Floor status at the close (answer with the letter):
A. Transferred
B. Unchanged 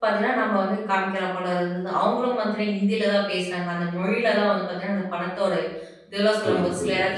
B